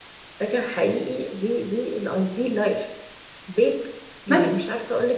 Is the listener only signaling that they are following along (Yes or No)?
Yes